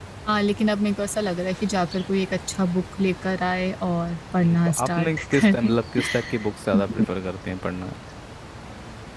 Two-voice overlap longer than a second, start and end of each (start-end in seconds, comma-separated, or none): 4.4-5.8